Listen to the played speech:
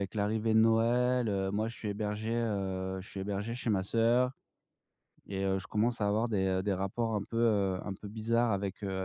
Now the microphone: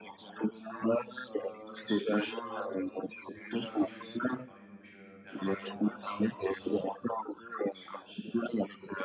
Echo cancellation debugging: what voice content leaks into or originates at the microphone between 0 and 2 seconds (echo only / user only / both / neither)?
both